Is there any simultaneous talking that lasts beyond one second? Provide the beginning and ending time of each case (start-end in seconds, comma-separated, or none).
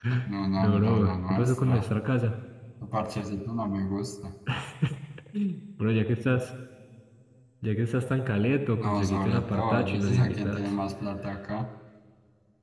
0.6-1.8, 8.8-10.7